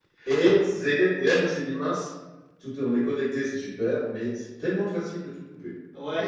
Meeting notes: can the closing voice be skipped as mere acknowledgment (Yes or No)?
No